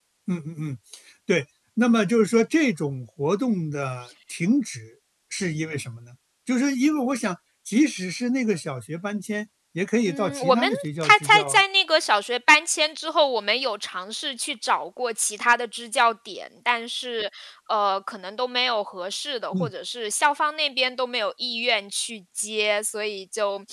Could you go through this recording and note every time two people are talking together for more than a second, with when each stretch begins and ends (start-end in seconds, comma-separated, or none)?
10.1-11.6